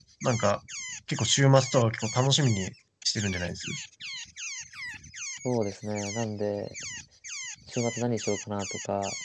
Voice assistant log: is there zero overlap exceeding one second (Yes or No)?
Yes